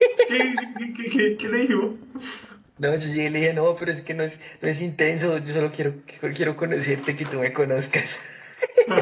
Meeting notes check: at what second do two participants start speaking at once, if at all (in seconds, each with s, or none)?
none